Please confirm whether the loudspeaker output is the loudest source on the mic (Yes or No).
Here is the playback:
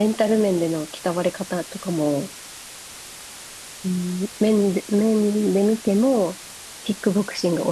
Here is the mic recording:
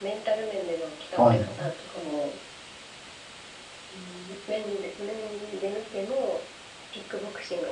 No